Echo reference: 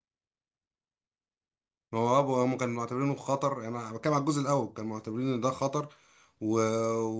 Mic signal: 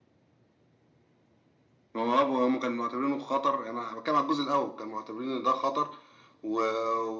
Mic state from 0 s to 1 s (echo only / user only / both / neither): neither